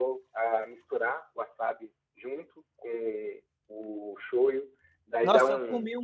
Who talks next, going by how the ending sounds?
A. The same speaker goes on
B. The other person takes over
B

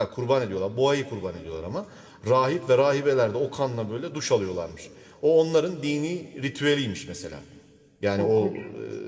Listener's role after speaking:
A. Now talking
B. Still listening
B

